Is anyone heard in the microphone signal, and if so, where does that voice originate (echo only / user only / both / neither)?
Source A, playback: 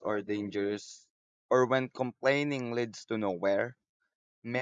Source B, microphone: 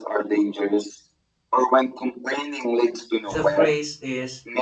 both